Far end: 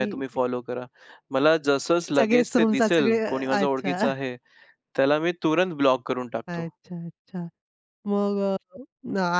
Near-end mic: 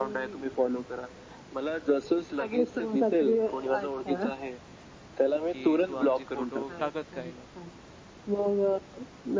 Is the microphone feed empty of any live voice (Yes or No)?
No